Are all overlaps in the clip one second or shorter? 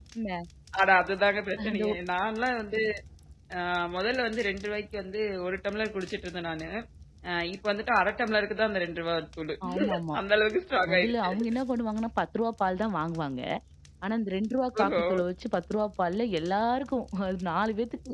Yes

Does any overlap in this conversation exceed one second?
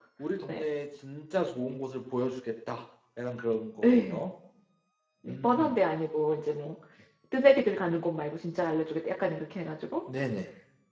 No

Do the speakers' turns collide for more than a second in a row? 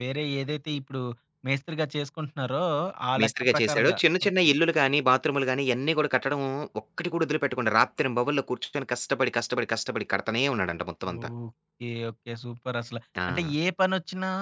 Yes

